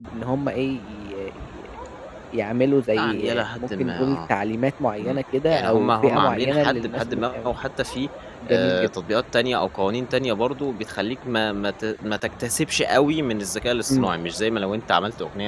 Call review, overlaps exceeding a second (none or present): present